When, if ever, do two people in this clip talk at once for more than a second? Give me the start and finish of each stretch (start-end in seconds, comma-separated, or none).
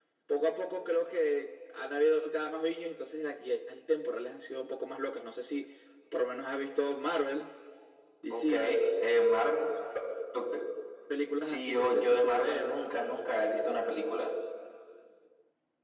11.4-12.8